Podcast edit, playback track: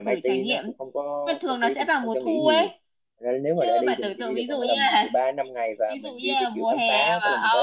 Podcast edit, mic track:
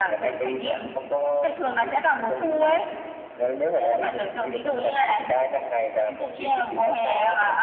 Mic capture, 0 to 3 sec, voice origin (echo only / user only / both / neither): echo only